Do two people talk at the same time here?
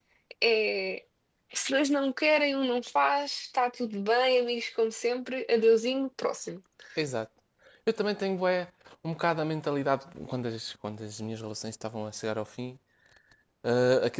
No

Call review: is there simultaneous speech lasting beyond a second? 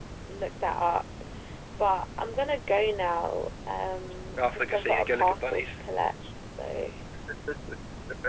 Yes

